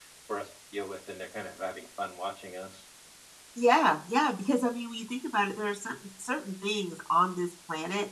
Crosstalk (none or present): none